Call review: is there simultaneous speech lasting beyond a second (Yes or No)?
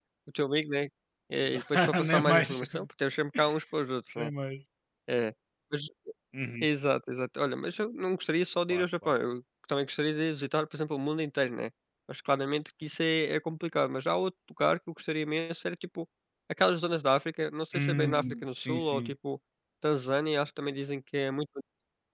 Yes